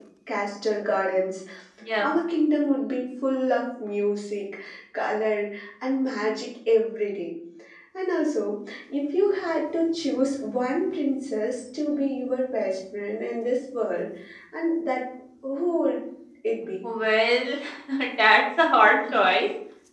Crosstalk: none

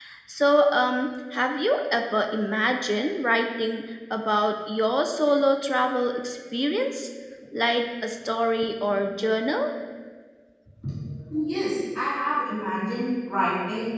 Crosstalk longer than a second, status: none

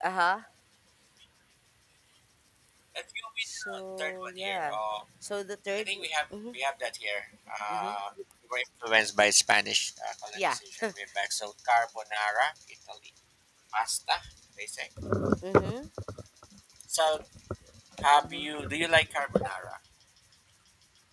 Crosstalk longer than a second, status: present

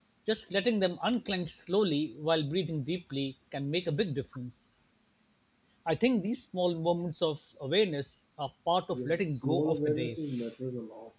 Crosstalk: present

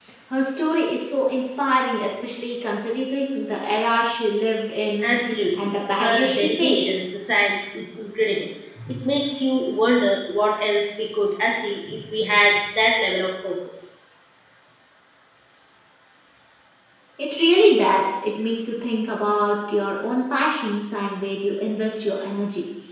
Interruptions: present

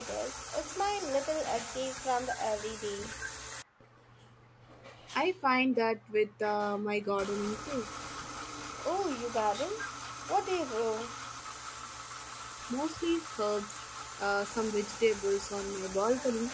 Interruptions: none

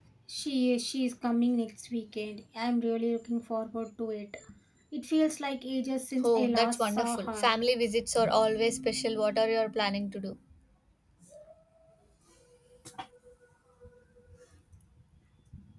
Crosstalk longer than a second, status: present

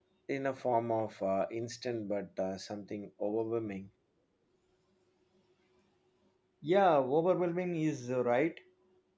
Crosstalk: none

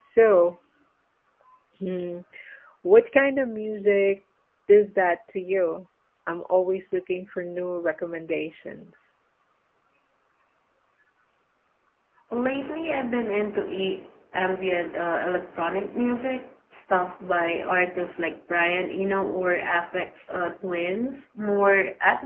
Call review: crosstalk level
none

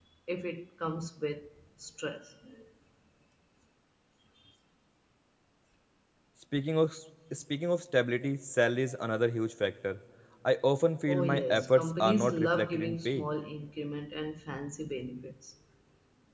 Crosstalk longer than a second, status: present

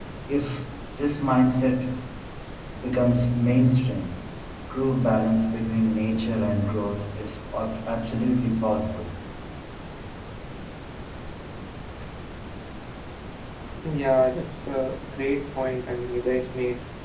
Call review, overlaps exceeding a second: none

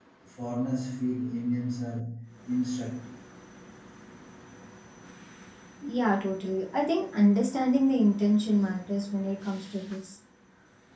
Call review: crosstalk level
none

